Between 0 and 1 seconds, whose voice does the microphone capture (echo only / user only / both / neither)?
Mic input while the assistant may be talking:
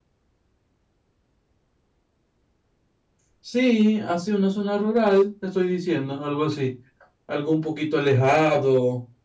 neither